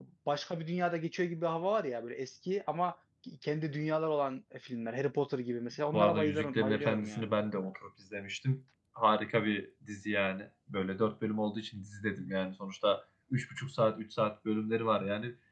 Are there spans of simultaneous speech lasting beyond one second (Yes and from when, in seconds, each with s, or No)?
Yes, from 5.9 s